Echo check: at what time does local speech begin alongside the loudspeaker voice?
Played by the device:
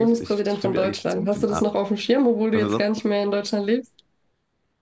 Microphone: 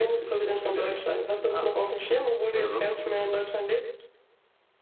none

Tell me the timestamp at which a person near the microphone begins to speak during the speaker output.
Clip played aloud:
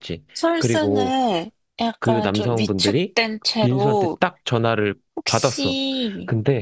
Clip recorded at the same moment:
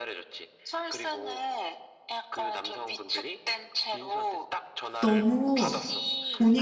5.0 s

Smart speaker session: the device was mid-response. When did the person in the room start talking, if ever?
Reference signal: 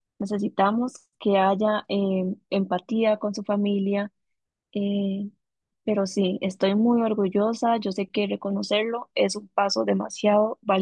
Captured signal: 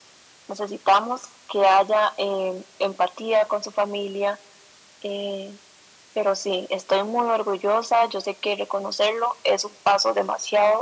none

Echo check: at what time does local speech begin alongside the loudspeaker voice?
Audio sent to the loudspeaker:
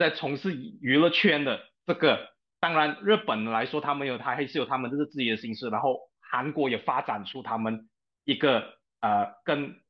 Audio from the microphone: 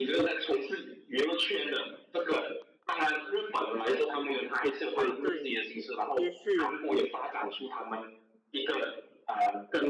4.9 s

